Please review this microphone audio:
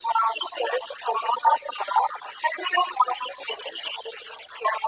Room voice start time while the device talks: none

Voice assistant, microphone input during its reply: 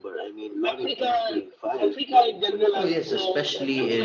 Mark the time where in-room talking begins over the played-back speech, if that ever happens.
2.7 s

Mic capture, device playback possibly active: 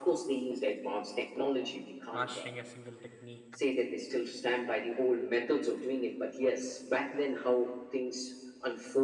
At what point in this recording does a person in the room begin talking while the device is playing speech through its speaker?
2.1 s

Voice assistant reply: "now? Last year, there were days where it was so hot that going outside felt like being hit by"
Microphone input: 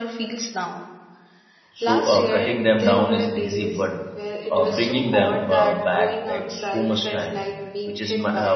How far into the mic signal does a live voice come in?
1.7 s

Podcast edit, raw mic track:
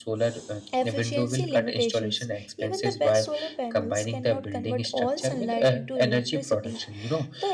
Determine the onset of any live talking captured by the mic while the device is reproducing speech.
0.7 s

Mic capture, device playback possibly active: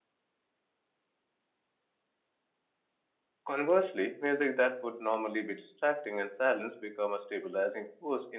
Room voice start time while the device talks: 3.5 s

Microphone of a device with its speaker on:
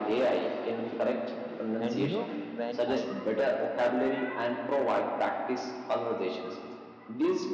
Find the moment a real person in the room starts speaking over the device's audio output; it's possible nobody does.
1.8 s

